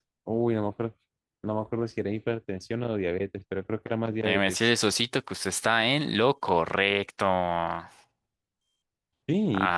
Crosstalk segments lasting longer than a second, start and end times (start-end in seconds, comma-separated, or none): none